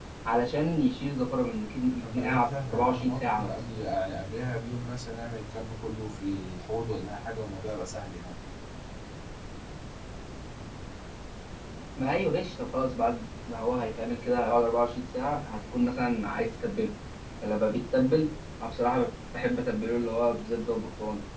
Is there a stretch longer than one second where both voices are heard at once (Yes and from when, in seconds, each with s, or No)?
Yes, from 2.0 s